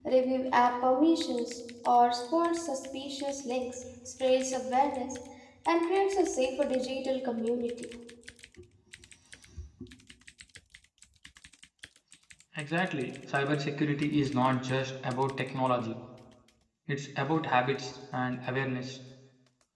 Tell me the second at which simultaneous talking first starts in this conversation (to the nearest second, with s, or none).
none